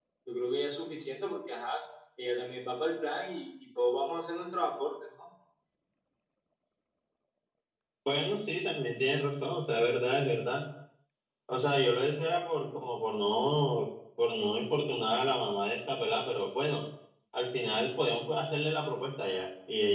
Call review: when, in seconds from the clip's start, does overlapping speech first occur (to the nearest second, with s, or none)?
none